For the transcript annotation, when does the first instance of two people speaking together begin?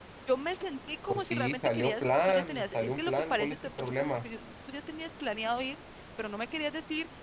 1.1 s

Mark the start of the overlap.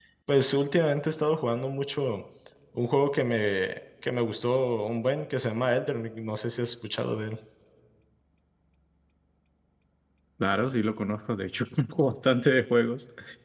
none

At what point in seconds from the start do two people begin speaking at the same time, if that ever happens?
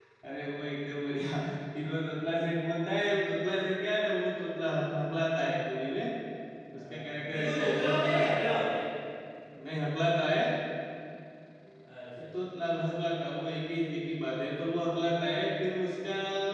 6.7 s

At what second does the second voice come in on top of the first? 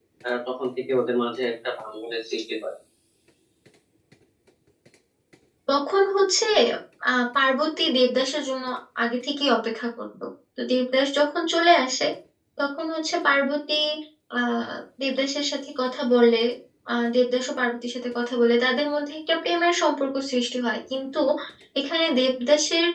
none

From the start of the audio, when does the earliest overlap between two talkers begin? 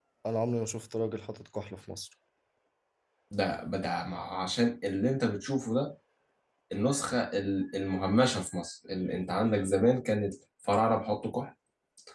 none

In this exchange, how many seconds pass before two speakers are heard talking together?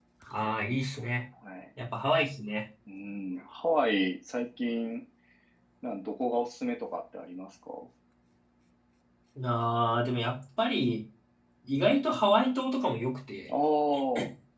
none

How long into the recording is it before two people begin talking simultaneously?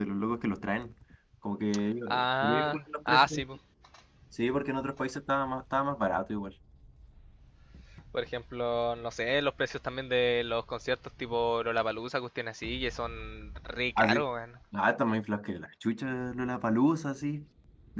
2.1 s

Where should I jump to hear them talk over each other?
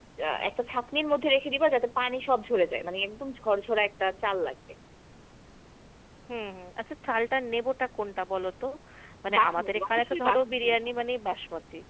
9.4 s

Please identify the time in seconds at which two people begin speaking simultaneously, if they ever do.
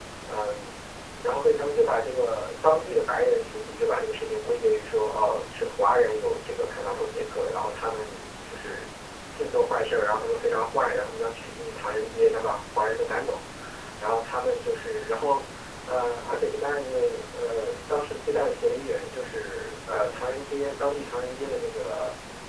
none

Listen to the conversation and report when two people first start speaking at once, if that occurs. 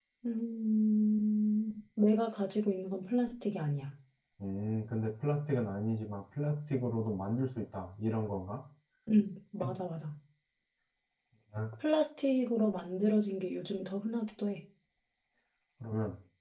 none

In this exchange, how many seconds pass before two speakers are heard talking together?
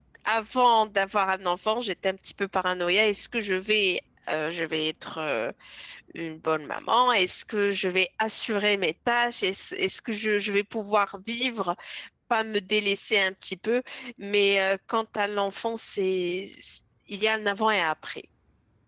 none

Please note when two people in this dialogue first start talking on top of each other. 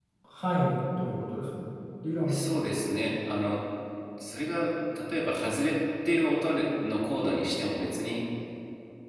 none

